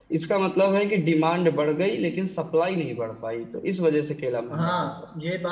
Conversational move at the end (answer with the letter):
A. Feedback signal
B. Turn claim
B